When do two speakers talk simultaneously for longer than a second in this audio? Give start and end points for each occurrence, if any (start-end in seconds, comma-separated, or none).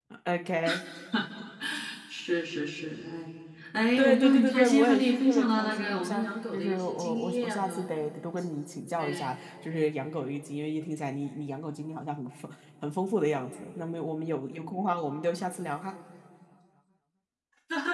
4.0-7.9